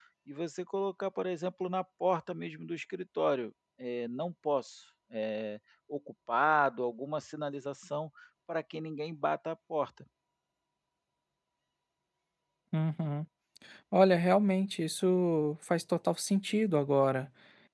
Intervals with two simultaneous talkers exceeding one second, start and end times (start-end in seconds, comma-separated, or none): none